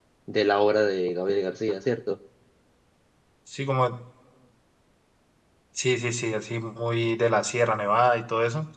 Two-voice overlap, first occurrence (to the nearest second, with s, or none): none